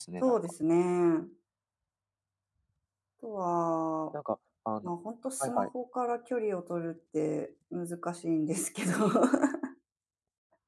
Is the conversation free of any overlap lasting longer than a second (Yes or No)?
Yes